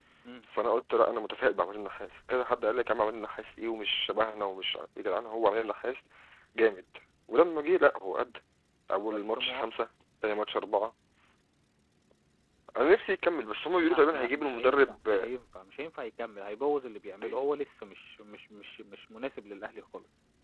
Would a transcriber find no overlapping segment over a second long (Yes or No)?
No